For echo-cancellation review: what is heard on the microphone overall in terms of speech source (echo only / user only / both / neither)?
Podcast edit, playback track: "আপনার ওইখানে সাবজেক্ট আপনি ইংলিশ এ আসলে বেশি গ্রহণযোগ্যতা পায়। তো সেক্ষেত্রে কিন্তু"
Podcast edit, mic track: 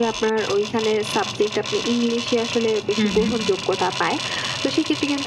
both